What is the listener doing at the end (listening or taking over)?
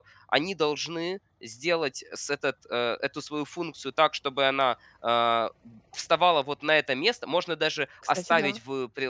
listening